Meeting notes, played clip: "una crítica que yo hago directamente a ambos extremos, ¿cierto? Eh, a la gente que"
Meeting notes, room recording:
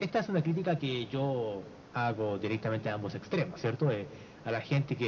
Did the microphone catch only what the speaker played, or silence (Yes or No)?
Yes